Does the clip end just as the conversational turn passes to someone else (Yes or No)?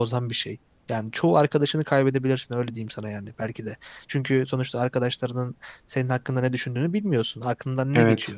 No